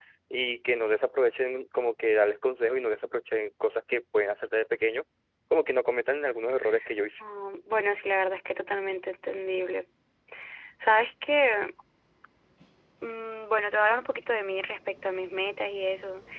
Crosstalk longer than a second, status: none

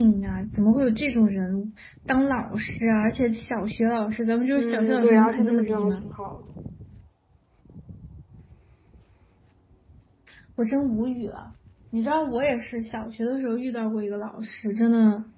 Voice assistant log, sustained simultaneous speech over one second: present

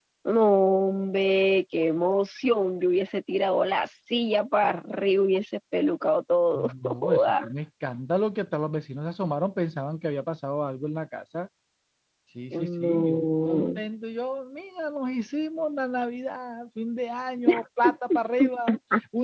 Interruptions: present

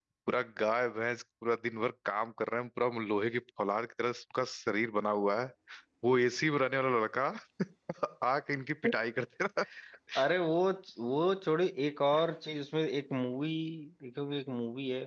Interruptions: none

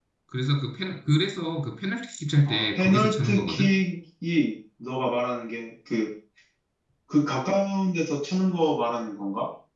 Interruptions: present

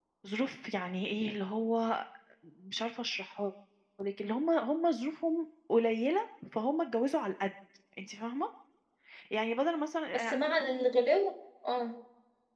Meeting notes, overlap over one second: none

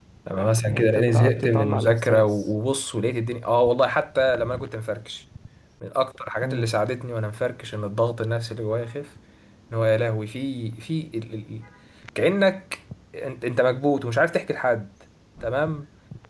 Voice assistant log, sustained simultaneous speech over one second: present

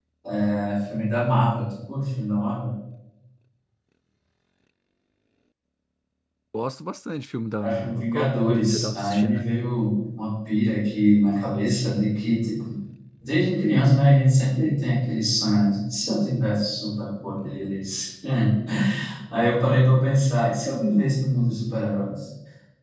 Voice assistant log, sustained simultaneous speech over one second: present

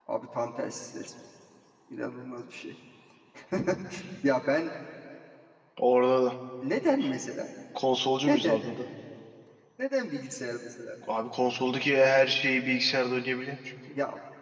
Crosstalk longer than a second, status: none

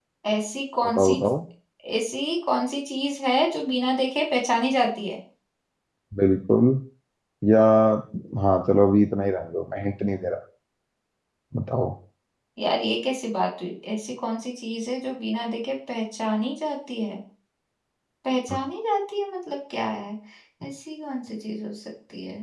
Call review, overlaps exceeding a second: none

